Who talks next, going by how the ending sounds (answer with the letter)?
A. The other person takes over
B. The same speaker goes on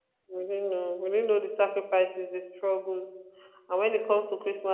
B